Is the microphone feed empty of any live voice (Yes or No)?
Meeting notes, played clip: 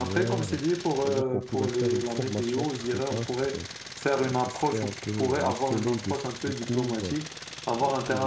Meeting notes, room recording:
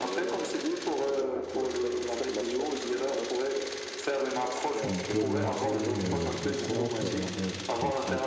No